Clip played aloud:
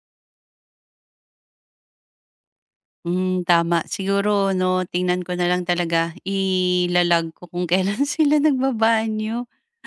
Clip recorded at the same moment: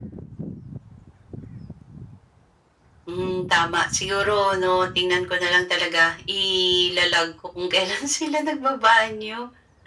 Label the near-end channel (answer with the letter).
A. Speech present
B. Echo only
B